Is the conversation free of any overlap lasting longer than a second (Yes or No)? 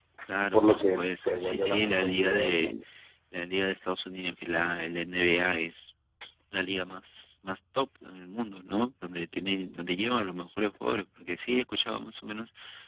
No